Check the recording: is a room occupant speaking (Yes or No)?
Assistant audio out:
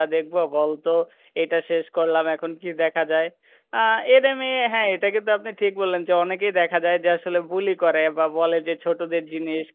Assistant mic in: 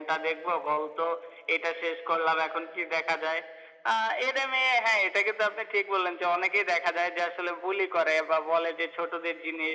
No